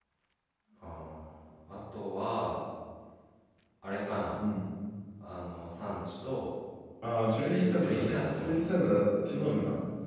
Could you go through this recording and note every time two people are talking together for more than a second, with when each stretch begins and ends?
7.4-8.7

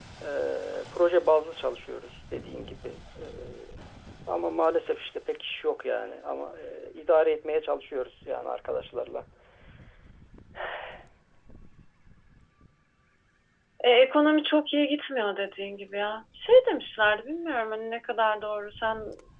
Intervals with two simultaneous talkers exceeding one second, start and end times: none

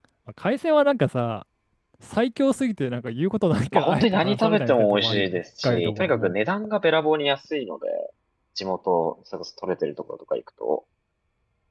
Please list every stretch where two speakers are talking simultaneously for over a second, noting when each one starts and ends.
3.7-6.4

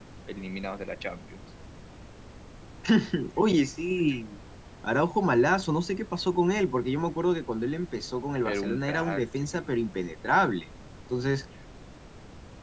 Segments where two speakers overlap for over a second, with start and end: 8.4-9.8

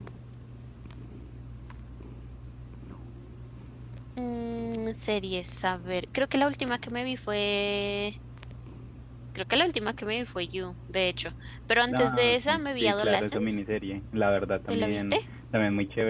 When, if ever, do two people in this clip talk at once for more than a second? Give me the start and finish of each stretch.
11.9-13.6

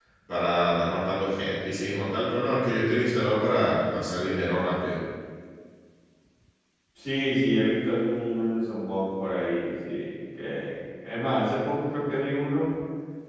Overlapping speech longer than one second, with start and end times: none

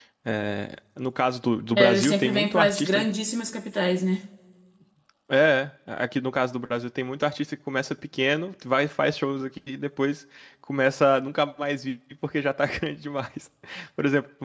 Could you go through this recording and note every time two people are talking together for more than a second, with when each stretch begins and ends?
1.8-3.1

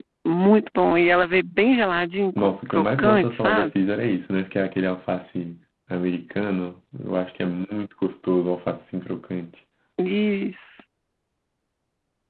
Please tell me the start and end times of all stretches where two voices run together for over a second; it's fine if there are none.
2.4-3.7

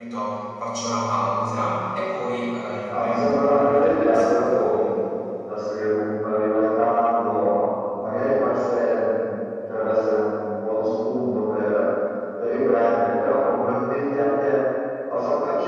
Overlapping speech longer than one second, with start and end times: 2.9-5.0

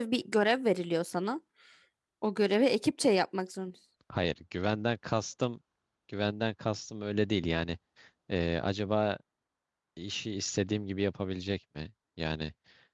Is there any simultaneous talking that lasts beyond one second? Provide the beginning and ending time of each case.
none

